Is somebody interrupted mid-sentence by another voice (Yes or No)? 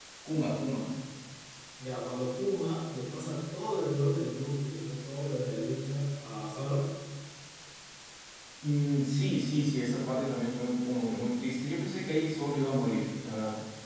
No